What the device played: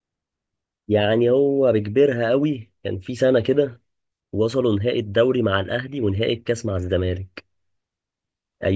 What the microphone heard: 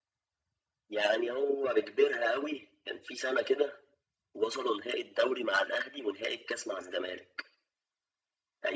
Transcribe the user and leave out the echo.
none

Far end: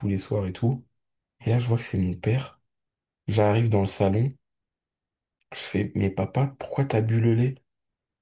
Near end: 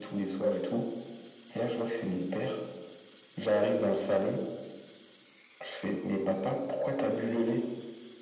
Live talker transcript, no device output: none

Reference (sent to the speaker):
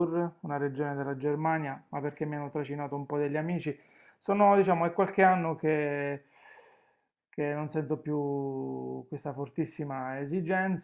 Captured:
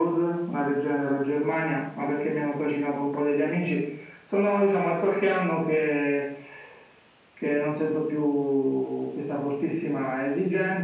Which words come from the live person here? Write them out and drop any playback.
none

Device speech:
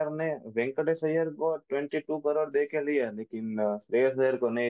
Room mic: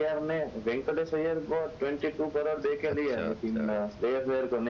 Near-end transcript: अच्छा अच्छा

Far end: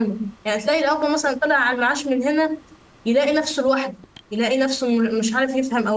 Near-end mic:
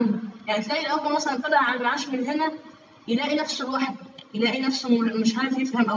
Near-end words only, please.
none

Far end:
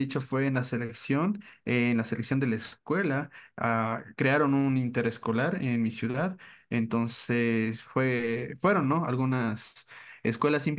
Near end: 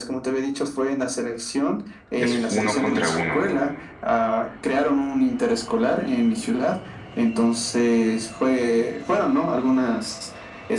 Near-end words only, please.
es uno contra uno.

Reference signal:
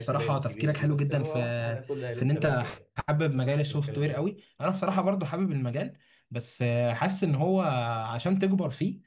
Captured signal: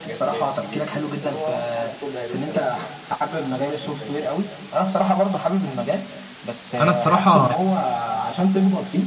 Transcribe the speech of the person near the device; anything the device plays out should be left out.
انا الصراحه

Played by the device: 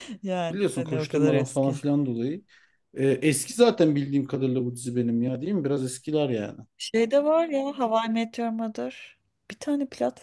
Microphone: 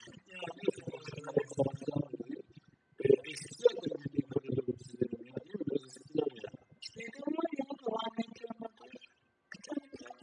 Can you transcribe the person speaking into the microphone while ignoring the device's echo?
none

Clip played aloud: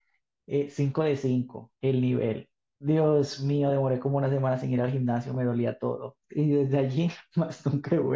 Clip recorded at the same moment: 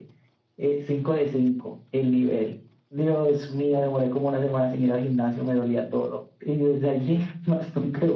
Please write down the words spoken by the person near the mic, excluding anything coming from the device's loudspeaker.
none

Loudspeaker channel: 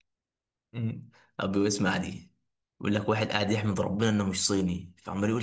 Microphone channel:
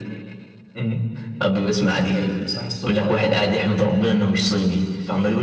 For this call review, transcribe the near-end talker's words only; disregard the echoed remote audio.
صاحي صاحي الصبح قرفان

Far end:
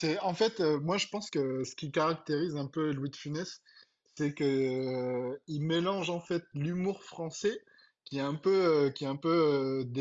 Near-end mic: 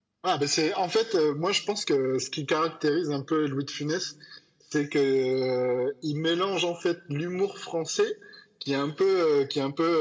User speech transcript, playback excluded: none

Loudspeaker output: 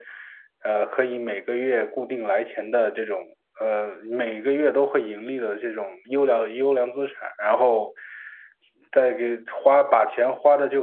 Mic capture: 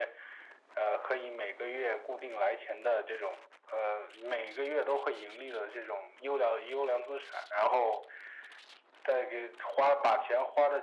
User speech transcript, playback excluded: none

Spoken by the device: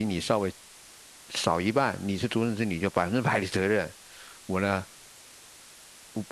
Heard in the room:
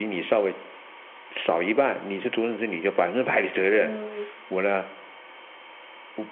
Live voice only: 嗯，

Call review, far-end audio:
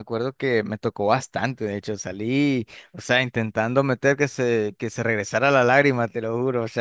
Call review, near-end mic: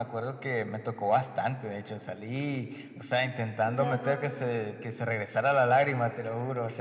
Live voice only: No,

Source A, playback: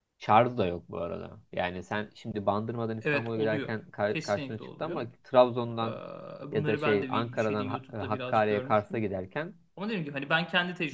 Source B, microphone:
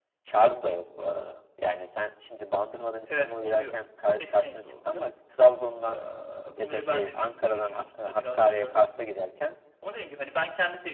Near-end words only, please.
none

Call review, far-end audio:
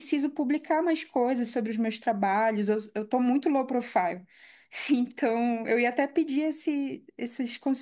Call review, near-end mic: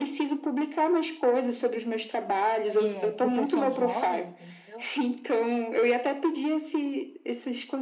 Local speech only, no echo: é para o pessoal jovem, entendeu?

